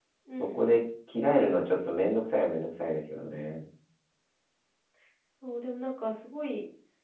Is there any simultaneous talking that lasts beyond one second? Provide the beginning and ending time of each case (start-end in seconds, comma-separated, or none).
none